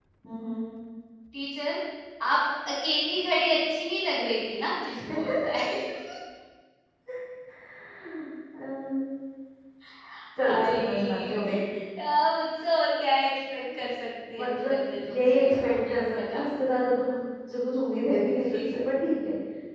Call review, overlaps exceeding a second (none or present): present